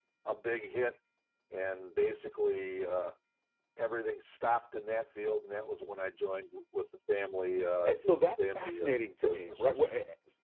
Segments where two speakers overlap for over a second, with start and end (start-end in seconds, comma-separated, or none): 7.8-9.8